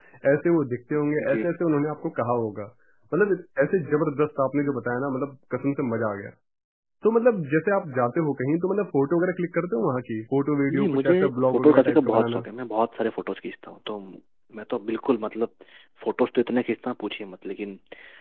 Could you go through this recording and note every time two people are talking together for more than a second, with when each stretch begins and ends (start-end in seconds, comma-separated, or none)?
10.7-12.4